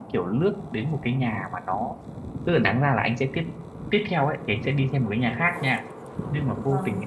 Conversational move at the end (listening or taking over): listening